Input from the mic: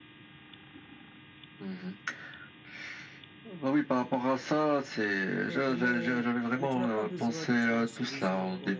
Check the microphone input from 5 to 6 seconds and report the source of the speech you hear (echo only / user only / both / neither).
both